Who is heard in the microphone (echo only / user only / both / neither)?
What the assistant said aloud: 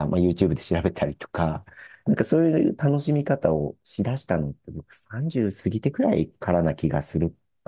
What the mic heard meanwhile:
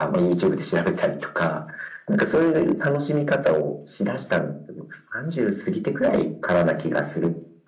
echo only